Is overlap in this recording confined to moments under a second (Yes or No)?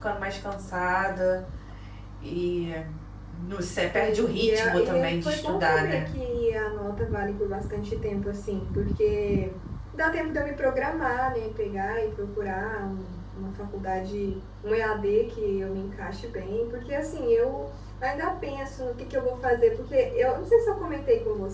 No